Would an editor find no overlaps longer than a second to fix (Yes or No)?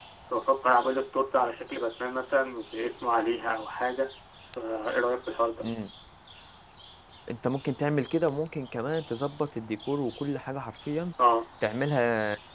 Yes